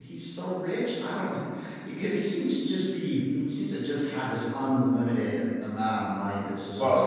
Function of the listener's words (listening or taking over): listening